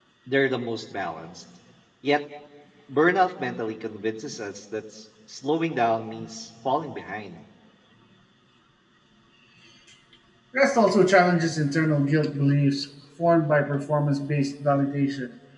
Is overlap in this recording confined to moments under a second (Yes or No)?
Yes